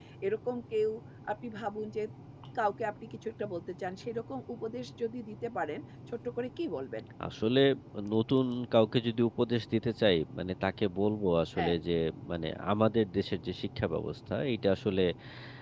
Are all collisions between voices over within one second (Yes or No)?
Yes